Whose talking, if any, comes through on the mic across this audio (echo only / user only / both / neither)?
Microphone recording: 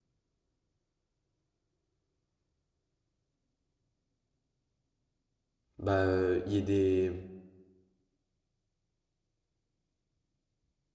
user only